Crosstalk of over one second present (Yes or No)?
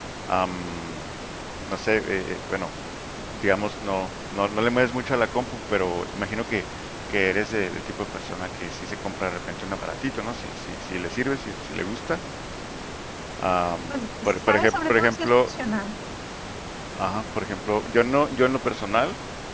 Yes